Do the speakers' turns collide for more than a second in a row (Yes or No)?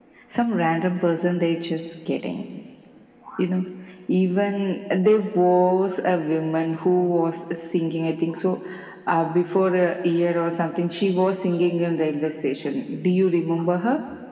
No